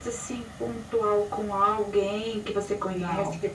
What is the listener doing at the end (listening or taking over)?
listening